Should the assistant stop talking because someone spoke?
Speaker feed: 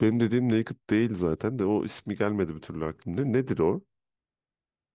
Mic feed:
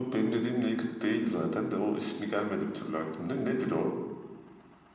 No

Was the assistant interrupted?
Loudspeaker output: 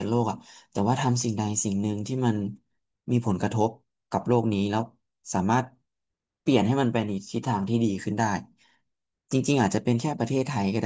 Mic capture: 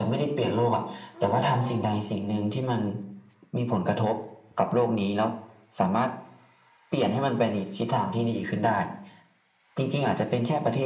Yes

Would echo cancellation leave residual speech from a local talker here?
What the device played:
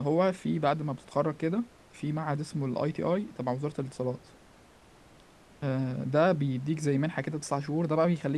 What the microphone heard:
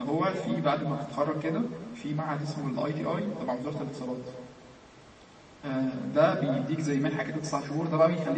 No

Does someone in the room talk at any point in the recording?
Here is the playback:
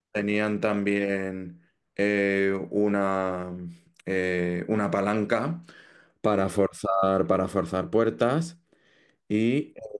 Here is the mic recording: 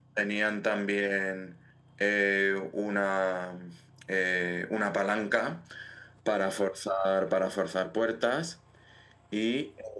No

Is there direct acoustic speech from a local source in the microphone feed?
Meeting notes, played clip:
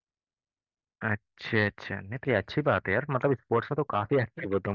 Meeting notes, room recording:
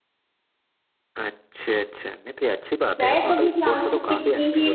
Yes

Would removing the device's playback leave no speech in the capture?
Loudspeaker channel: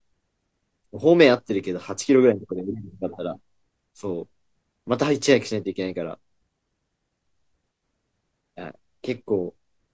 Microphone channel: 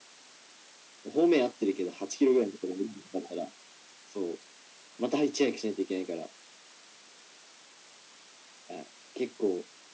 Yes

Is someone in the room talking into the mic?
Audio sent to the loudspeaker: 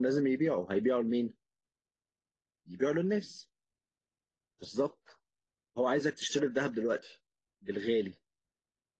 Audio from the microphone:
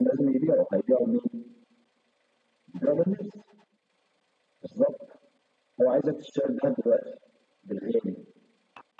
No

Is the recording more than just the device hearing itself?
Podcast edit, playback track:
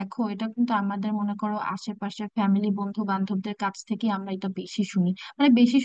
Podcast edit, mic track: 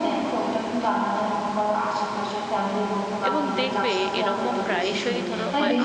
Yes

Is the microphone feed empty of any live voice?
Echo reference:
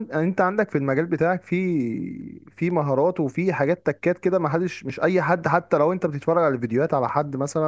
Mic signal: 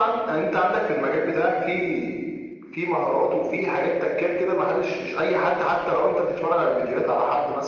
Yes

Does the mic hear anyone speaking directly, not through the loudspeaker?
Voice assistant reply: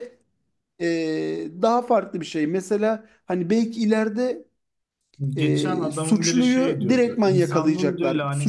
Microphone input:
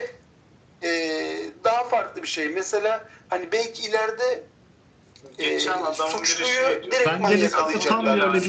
Yes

